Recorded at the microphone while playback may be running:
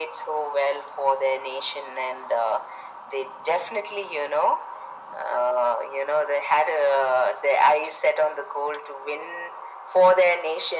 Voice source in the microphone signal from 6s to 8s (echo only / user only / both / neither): echo only